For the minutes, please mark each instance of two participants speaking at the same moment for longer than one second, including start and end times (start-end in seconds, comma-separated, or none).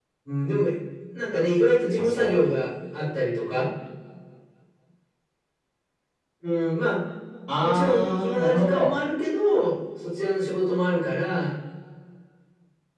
7.6-9.0